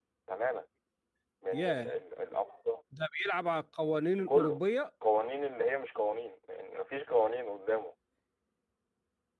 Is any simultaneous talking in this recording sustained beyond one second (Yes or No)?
No